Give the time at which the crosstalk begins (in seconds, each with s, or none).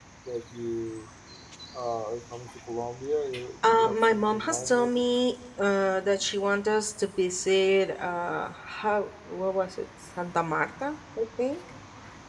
3.6 s